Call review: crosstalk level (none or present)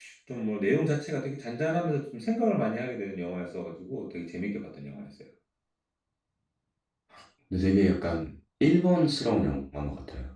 none